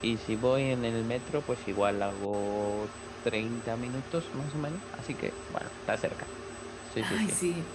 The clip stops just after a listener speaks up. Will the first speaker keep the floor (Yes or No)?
No